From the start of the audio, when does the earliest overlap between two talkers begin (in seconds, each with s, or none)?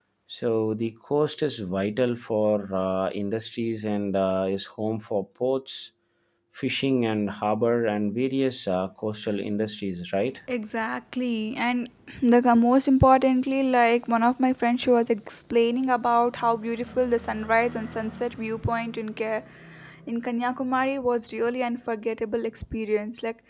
none